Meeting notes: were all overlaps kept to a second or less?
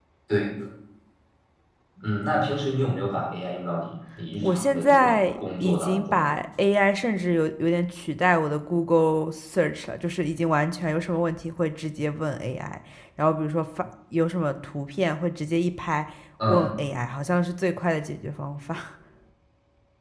No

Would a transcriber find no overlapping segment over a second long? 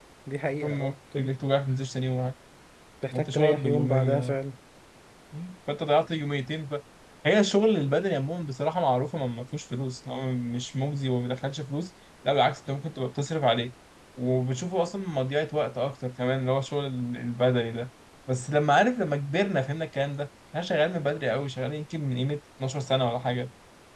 No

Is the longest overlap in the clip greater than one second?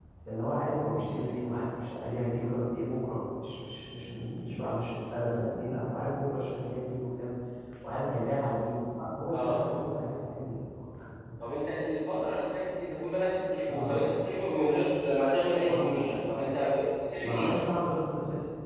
No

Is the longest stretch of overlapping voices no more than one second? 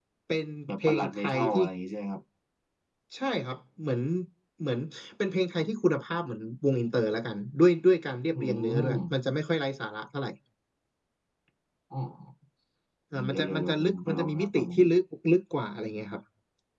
No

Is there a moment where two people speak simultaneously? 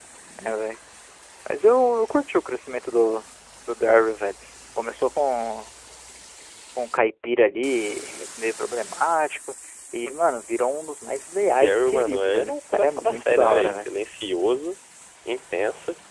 Yes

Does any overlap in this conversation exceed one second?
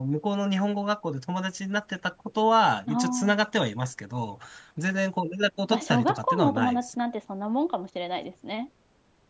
Yes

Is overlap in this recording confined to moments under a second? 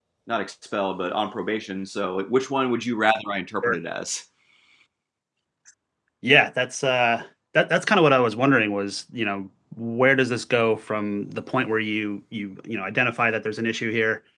Yes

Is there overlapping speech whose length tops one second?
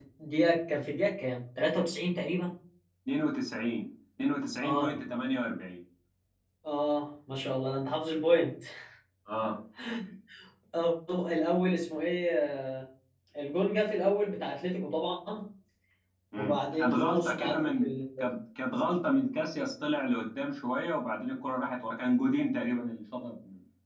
Yes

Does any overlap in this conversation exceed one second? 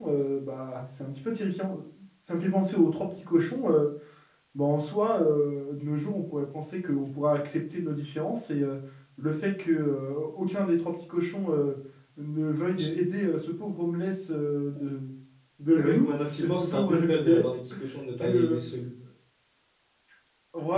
Yes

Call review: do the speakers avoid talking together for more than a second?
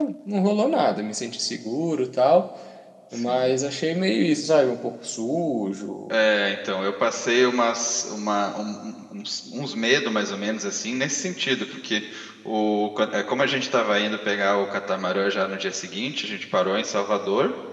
Yes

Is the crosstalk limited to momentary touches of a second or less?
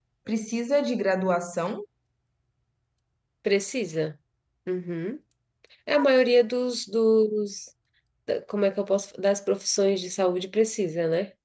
Yes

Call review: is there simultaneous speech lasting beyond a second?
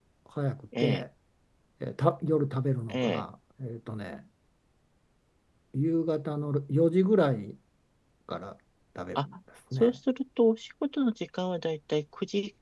No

